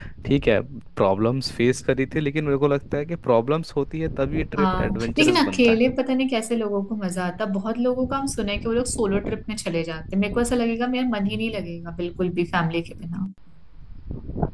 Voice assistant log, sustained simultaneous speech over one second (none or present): present